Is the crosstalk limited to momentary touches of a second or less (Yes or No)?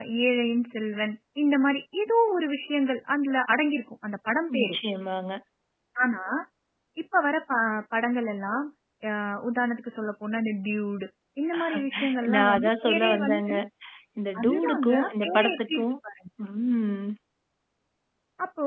No